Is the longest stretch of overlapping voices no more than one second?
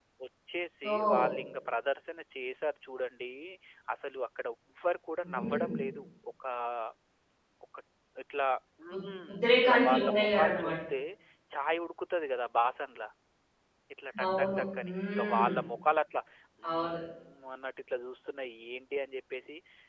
No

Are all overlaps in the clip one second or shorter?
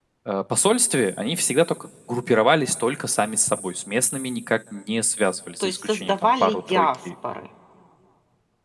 No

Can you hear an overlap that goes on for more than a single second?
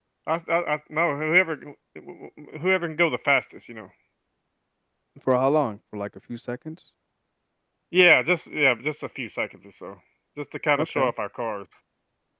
No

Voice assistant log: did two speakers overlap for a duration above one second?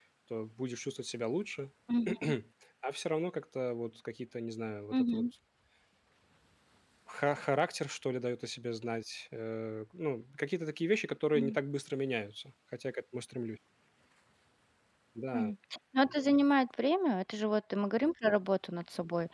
No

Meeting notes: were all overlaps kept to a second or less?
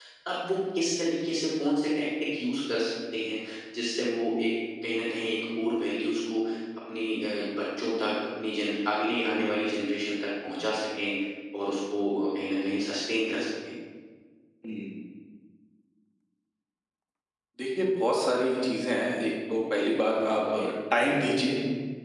Yes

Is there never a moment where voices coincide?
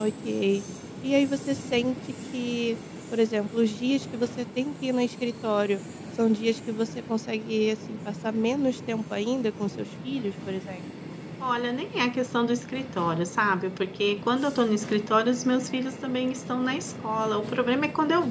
Yes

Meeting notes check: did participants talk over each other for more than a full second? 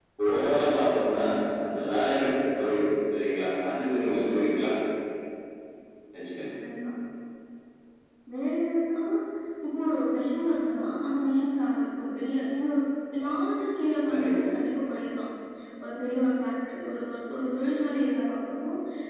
No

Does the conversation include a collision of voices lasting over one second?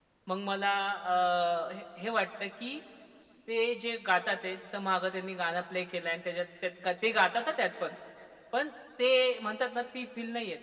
No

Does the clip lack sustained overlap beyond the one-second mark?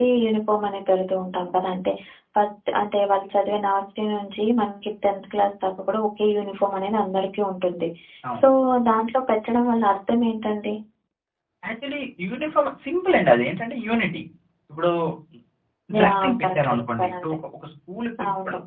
No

